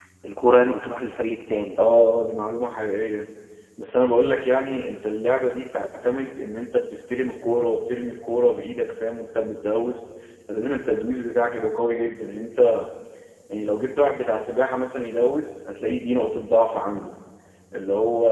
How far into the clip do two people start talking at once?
none

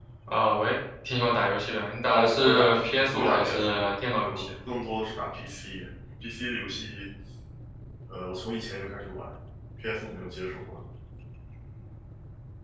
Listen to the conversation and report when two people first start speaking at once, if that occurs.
2.1 s

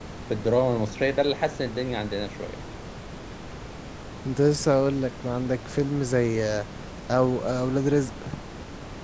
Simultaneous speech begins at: none

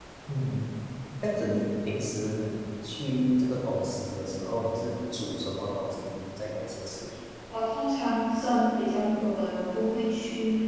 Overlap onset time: none

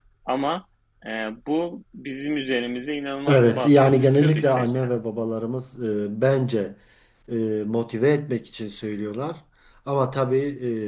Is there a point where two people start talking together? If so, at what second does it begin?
3.3 s

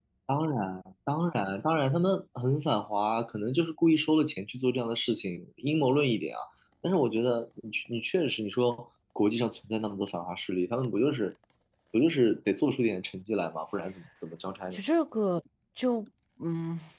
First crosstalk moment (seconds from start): none

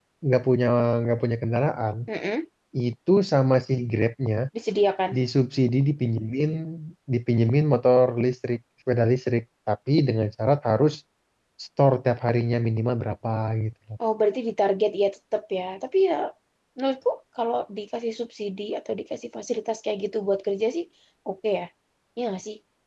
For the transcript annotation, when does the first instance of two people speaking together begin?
none

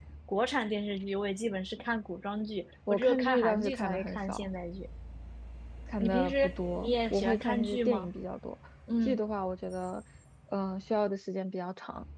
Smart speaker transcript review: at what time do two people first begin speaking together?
2.9 s

